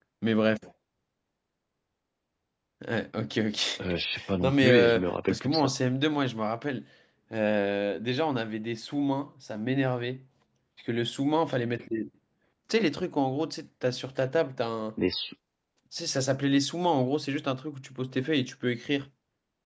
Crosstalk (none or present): present